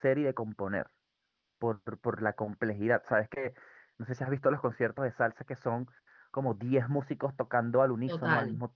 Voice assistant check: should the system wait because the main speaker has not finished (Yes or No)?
Yes